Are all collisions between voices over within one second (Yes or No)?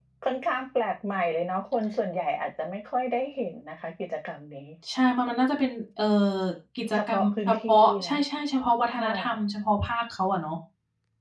No